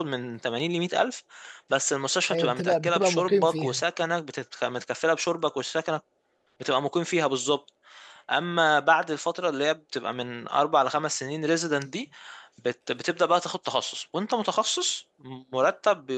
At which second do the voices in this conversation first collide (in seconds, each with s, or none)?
2.3 s